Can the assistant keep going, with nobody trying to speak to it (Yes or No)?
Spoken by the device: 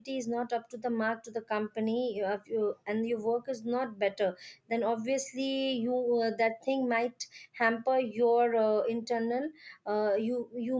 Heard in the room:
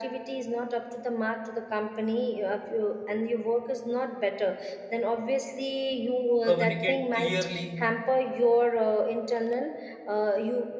No